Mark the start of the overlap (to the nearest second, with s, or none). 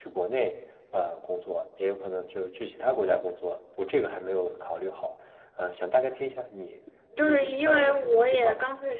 7 s